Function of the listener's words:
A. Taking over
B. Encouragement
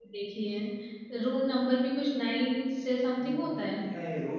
A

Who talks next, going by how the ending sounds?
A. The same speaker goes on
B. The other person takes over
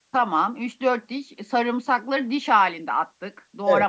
B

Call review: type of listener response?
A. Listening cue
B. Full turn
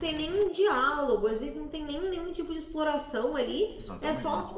A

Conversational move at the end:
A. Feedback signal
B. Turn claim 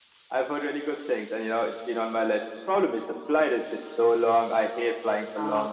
A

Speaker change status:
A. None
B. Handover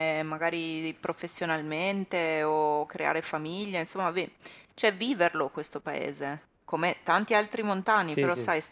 A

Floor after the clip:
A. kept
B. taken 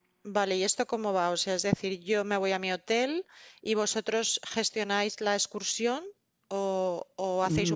B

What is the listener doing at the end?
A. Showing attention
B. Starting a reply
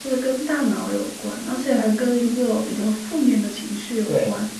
B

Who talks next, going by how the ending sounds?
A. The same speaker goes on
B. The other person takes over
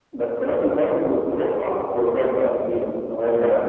B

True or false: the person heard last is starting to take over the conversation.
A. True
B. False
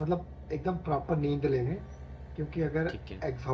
B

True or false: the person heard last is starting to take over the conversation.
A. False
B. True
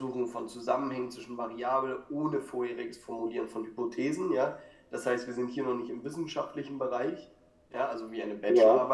A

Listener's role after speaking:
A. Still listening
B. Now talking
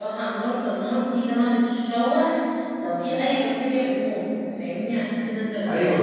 B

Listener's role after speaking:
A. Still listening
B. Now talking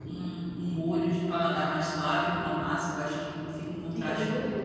B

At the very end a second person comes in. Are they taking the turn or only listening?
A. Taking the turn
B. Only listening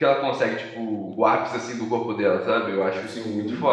B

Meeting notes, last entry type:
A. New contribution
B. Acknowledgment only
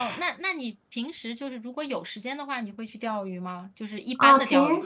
A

